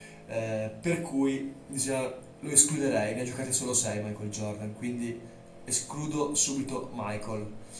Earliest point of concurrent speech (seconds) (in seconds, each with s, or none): none